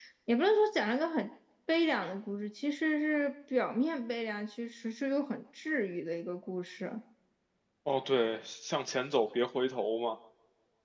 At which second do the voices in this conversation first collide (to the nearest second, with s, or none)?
none